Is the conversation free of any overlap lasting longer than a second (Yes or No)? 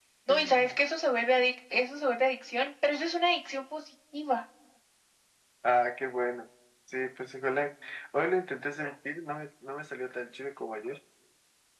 Yes